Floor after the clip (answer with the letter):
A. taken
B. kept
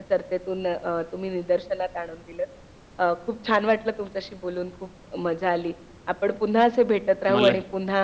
B